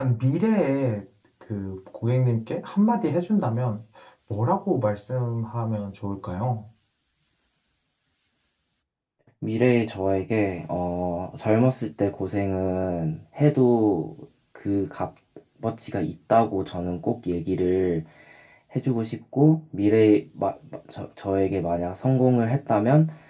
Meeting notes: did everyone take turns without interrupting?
Yes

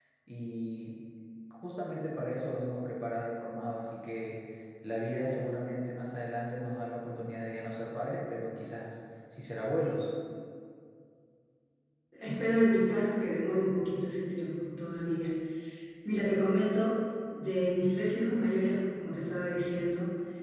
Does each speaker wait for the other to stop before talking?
Yes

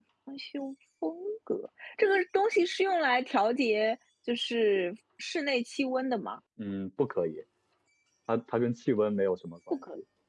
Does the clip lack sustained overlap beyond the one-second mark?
Yes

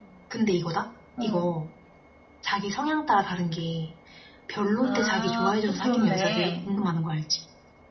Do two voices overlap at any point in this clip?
Yes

